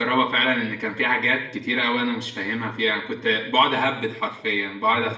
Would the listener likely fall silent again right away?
Yes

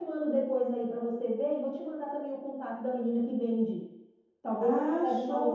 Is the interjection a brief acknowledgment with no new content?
No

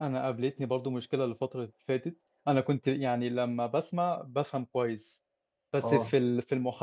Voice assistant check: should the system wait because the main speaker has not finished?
Yes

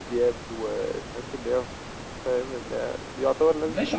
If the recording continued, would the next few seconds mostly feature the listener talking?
Yes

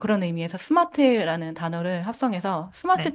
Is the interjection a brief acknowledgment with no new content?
Yes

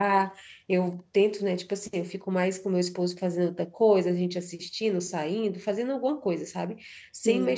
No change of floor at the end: Yes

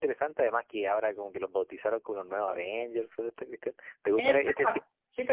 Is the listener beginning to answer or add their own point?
Yes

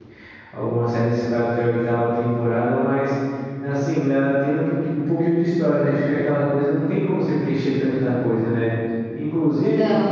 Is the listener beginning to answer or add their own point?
No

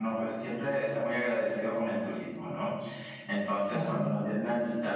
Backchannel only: Yes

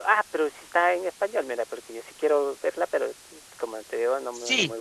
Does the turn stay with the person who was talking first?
No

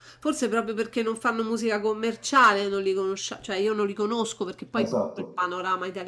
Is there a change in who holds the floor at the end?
No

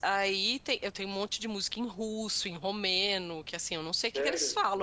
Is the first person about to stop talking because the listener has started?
No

